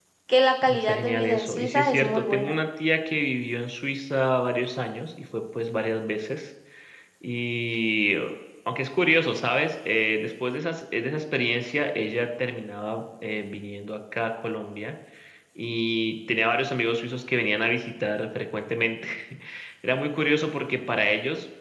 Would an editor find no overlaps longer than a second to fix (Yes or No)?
No